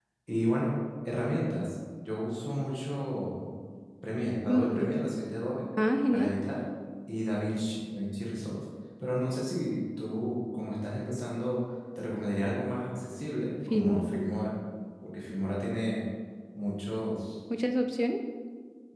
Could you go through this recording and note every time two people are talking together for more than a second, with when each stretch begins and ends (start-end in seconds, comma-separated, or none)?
none